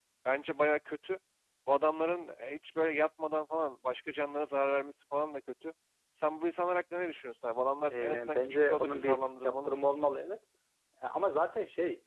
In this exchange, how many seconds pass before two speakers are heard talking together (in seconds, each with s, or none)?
7.9 s